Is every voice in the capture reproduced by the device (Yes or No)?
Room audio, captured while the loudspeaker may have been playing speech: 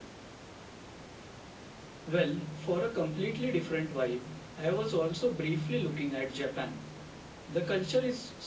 Yes